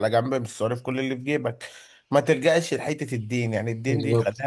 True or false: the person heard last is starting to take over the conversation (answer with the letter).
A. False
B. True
A